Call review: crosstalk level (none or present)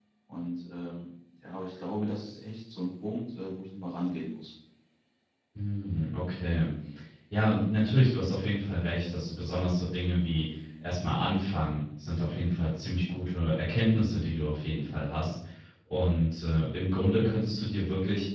none